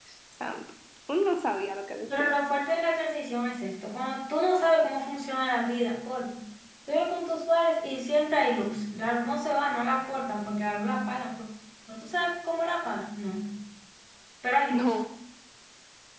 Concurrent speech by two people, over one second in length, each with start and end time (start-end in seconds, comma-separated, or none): none